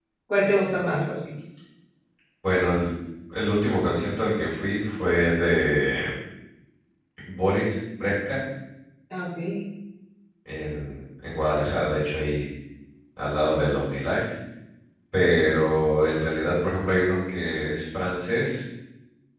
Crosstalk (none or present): none